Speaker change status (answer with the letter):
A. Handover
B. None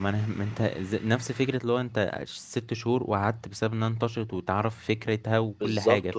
A